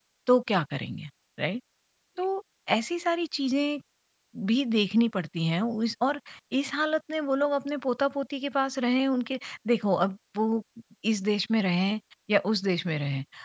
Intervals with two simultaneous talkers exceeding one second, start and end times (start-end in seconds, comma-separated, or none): none